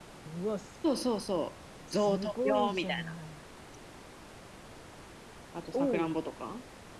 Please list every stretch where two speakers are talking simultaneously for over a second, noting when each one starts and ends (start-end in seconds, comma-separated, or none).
1.9-3.1